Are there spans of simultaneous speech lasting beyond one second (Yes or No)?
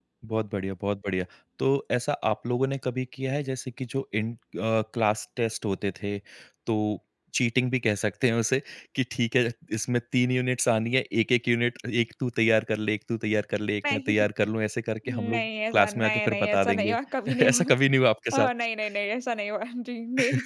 Yes